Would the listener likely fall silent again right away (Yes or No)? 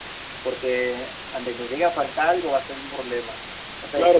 No